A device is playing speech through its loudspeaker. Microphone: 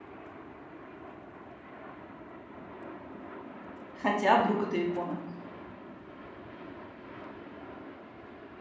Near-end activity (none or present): present